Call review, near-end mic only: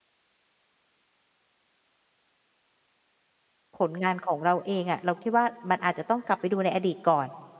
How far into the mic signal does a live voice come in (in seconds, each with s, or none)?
3.8 s